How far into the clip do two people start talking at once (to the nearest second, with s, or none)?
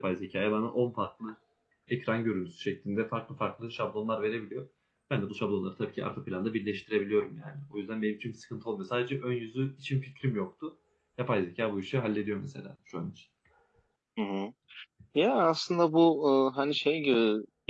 none